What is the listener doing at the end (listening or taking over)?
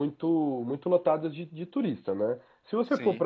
listening